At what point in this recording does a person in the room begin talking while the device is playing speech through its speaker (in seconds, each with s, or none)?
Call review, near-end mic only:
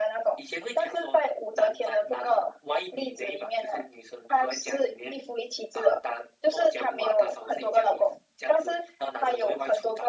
none